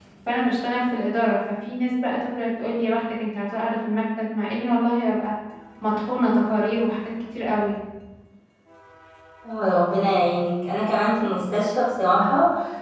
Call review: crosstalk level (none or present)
none